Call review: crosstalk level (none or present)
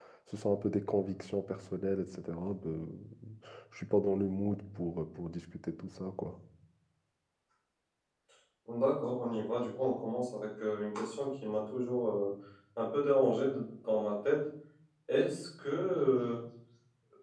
none